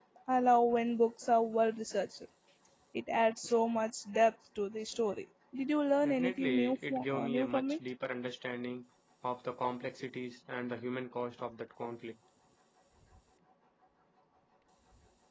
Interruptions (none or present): present